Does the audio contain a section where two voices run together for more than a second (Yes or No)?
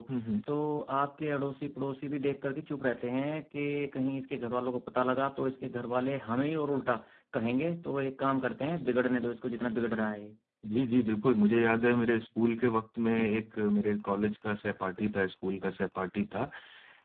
No